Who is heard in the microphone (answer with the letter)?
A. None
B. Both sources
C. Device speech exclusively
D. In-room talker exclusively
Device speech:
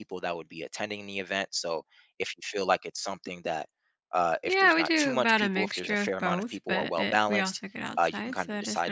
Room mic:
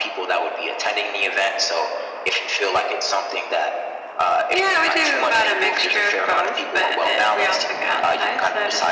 C